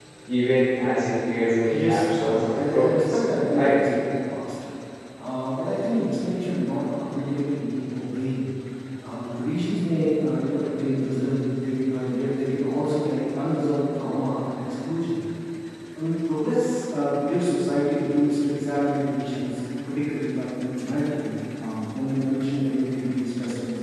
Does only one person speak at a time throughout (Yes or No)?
No